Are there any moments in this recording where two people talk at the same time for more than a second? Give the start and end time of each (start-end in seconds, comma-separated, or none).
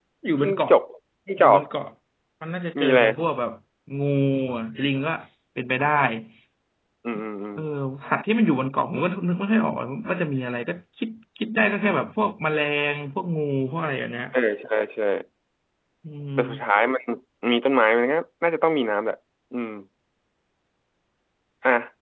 none